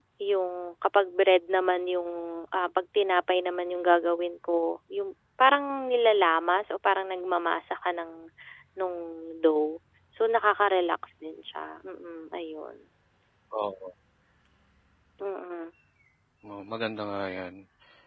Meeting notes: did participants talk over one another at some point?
No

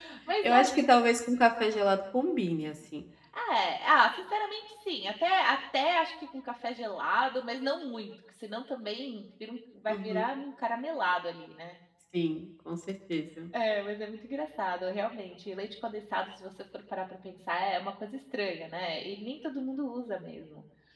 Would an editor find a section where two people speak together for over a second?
No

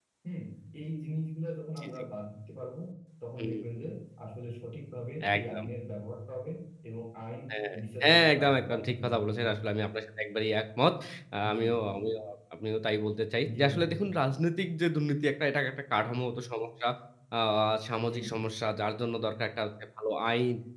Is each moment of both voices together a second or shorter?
No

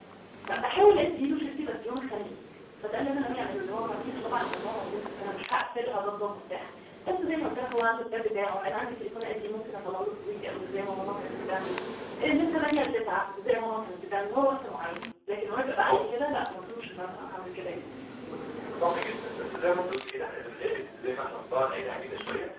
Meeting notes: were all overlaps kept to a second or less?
Yes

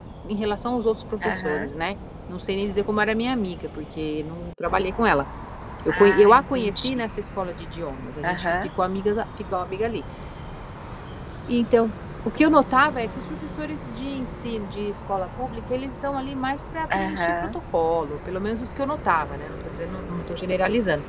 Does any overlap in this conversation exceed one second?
Yes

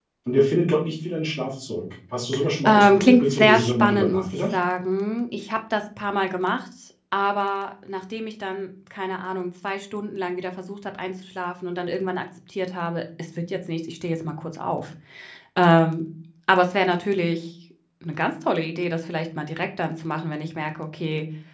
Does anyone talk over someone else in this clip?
Yes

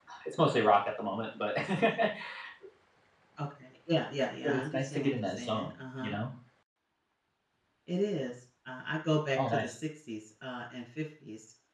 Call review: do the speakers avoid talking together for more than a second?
No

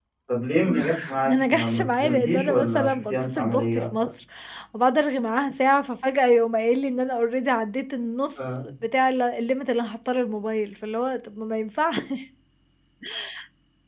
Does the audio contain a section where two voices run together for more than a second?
Yes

